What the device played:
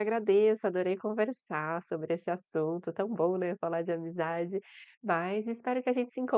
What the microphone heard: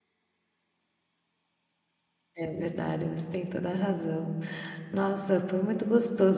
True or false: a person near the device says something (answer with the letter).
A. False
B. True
B